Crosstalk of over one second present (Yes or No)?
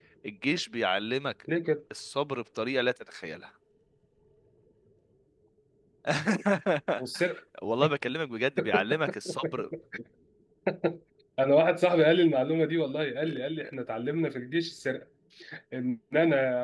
No